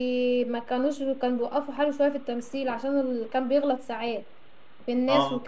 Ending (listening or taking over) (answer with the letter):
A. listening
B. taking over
B